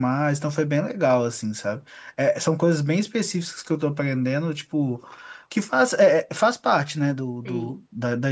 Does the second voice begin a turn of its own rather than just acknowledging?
No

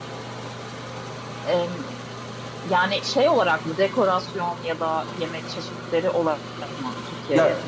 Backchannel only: No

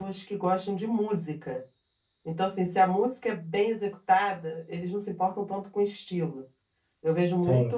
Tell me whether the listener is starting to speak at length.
No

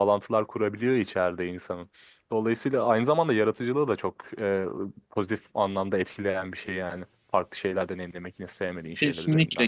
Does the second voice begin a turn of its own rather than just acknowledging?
Yes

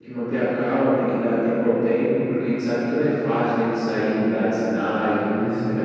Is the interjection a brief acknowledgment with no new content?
Yes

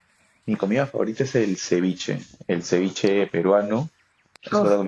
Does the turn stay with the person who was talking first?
Yes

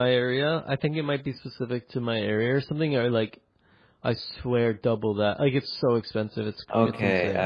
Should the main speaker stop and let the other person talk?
Yes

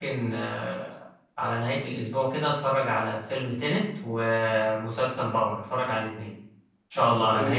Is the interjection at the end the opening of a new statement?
Yes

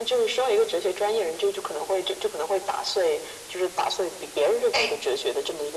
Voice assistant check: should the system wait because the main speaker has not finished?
Yes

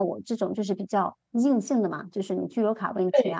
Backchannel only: Yes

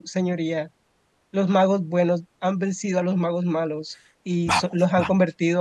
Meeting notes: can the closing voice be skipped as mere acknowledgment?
Yes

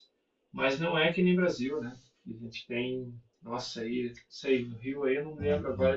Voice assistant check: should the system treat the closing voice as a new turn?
No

